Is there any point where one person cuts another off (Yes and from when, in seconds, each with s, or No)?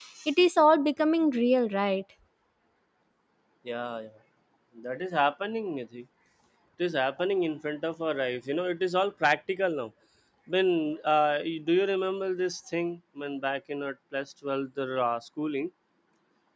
No